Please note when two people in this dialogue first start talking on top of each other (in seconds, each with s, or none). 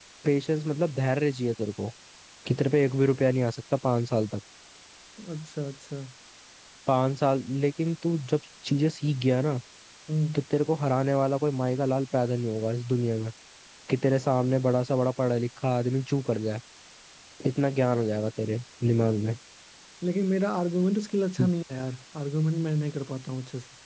none